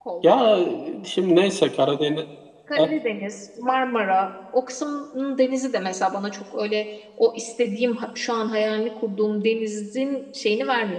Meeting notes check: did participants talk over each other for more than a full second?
No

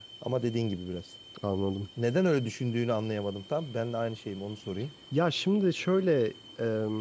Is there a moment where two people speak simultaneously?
No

